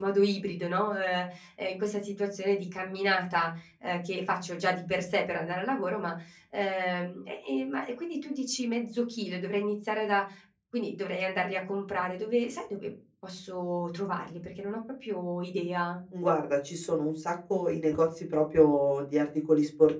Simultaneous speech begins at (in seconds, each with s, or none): none